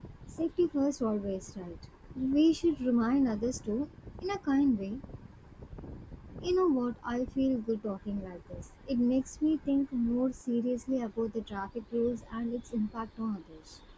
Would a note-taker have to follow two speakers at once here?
No

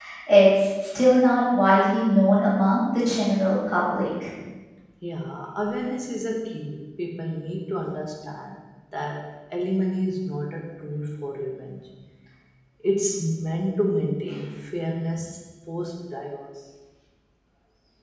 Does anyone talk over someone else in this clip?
No

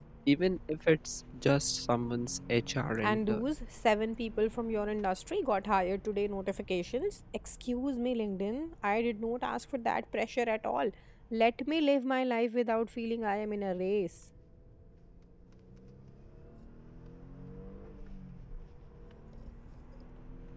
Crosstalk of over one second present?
No

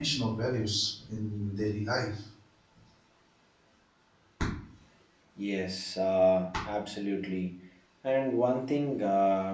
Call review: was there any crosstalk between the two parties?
No

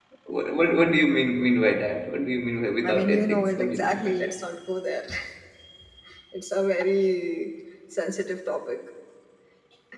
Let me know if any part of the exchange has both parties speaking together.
Yes, from 2.8 s

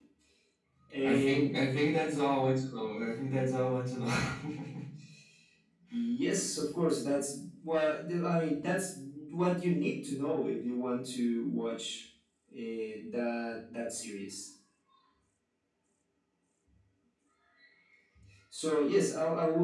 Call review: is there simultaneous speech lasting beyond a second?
No

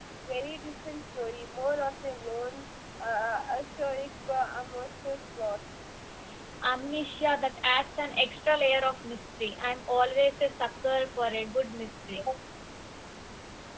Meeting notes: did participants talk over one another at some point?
No

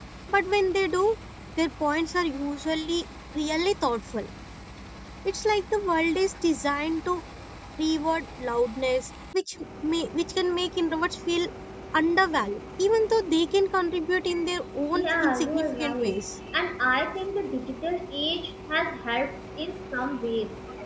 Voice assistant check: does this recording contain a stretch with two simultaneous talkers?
Yes, from 14.9 s

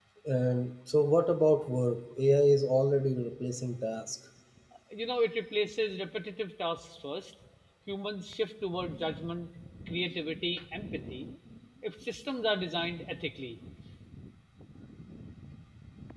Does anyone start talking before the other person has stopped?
No

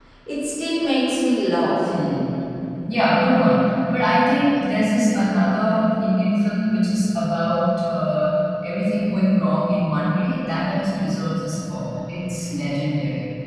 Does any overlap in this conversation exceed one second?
No

